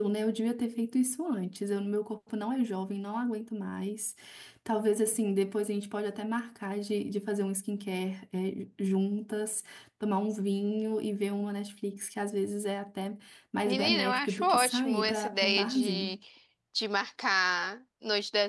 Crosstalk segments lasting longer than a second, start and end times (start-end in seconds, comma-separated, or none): 13.7-16.1